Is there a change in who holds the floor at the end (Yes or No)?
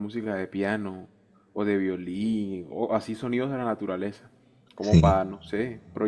No